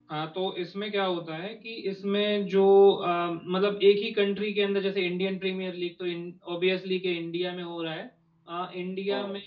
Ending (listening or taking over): listening